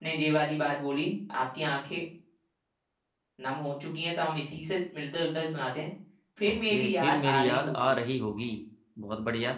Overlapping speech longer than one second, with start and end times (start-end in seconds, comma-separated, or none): 6.5-7.9